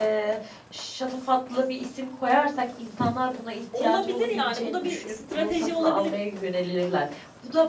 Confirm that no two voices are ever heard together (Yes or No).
No